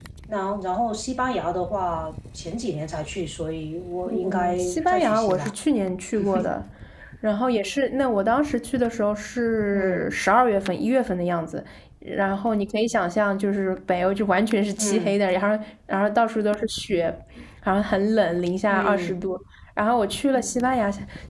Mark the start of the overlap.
4.3 s

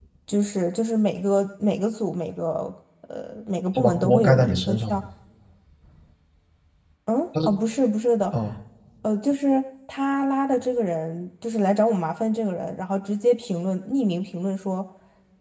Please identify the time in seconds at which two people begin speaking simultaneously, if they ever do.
3.8 s

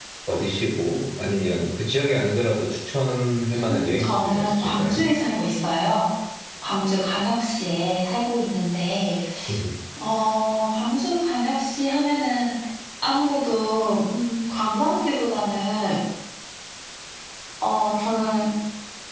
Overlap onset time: 3.5 s

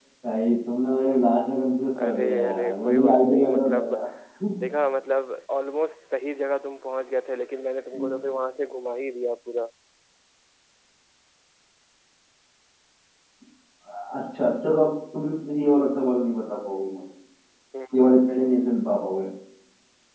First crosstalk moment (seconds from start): 2.0 s

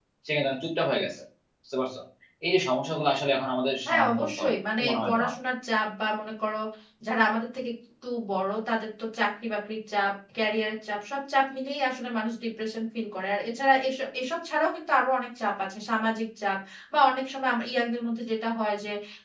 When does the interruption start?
3.8 s

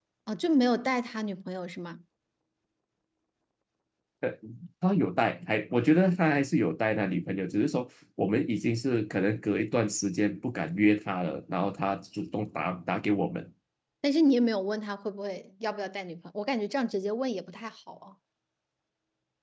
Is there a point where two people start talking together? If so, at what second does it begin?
none

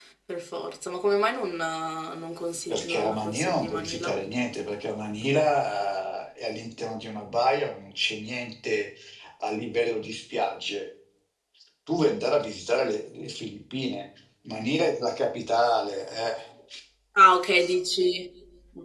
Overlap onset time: 2.7 s

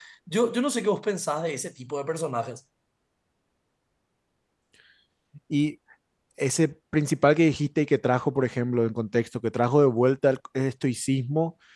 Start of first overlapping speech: none

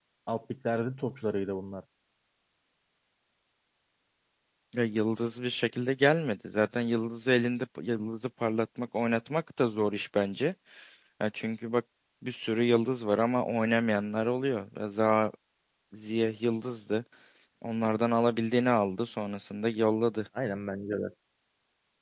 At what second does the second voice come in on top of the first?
none

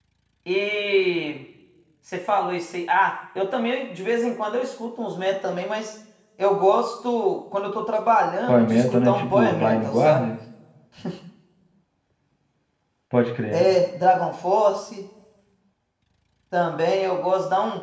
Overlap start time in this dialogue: 8.5 s

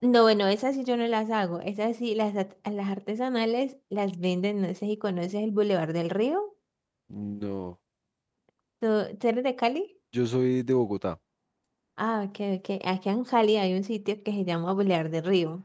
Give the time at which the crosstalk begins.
none

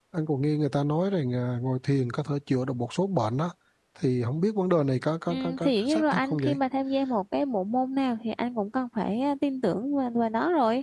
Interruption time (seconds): 5.3 s

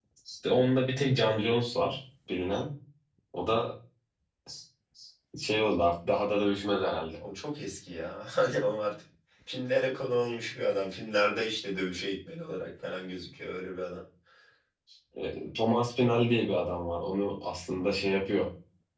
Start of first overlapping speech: none

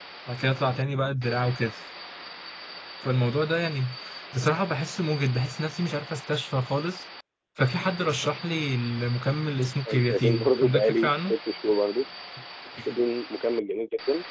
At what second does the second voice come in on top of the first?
9.9 s

